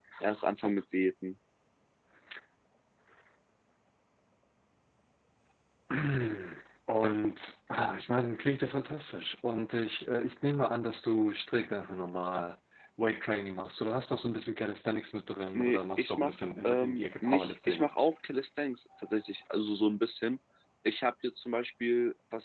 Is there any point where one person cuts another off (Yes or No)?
Yes